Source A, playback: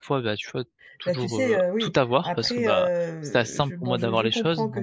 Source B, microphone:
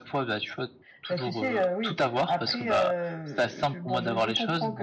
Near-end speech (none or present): none